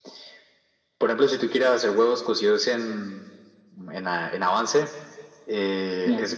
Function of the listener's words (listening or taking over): listening